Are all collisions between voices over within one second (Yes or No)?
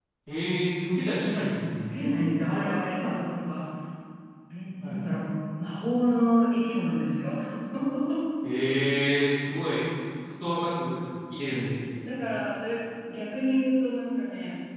Yes